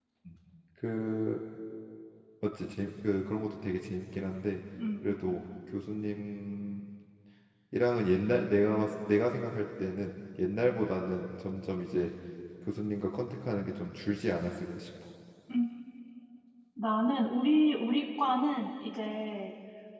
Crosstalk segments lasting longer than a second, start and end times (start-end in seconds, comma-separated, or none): none